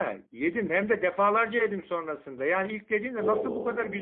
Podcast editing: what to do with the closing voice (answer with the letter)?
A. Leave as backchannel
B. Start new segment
A